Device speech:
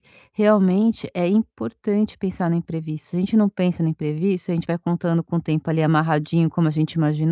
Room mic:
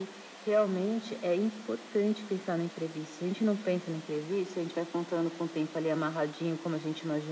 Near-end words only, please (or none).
none